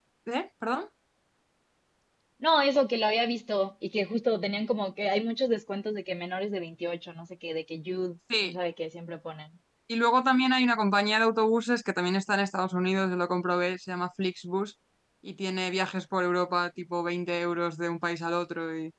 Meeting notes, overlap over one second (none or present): none